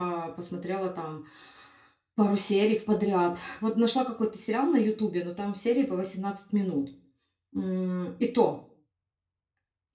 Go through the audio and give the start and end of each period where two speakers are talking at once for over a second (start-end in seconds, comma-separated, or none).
none